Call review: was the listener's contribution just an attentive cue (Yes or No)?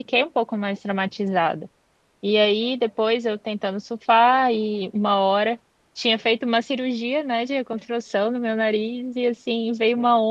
Yes